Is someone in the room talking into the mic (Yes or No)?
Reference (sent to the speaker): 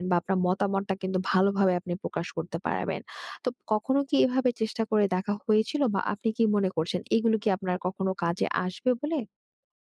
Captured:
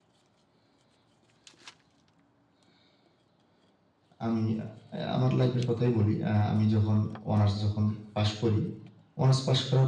Yes